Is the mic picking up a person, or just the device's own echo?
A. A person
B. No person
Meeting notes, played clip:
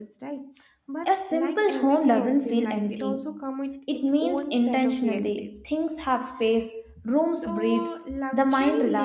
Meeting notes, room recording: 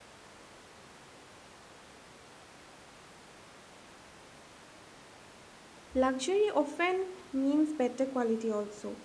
A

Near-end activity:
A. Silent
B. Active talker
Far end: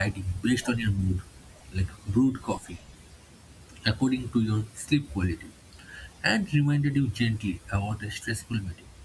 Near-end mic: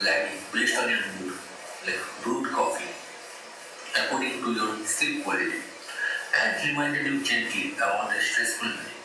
A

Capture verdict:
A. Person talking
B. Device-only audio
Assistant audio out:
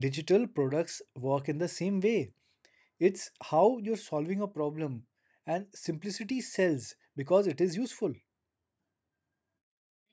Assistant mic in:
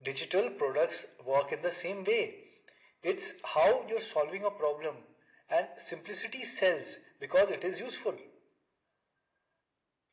B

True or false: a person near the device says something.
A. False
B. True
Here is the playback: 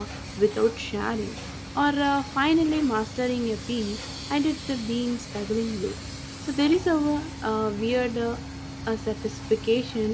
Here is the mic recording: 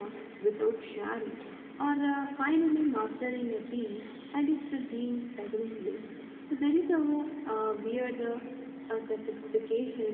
A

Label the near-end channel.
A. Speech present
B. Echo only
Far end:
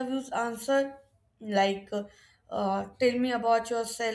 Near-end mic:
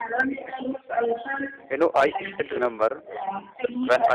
A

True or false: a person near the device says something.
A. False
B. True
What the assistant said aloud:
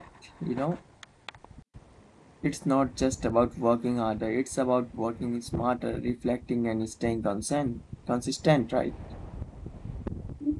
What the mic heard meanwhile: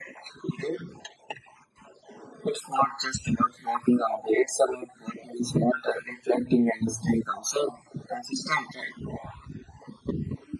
A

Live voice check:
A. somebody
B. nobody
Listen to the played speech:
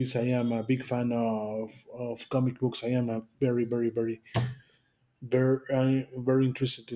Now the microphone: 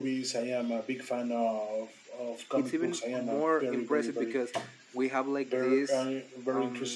A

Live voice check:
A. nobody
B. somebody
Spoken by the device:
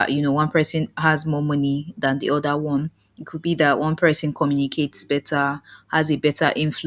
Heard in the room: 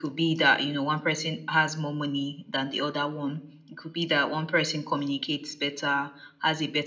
A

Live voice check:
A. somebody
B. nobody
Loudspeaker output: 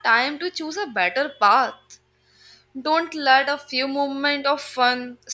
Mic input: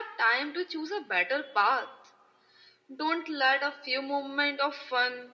B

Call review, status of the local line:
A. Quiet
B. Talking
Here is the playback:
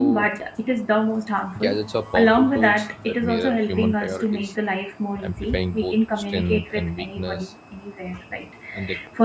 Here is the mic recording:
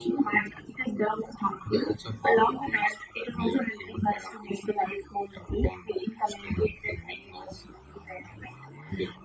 A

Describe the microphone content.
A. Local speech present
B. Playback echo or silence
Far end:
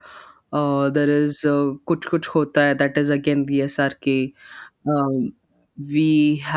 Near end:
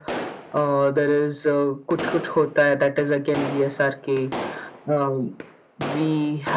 B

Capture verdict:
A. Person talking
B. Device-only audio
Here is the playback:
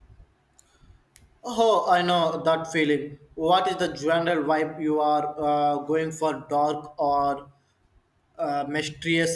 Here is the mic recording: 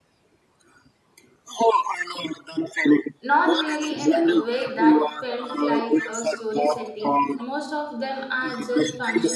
A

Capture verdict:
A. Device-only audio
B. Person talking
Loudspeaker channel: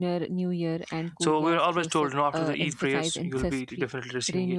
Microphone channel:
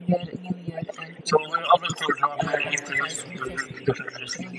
B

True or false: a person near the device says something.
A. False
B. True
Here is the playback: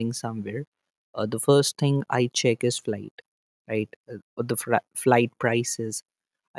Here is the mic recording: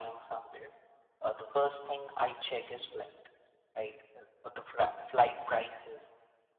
A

